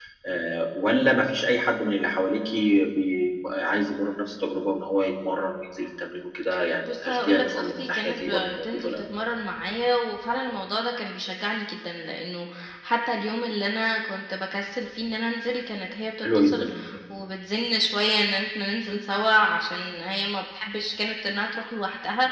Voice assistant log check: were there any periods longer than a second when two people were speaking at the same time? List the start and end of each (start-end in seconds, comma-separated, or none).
7.0-9.0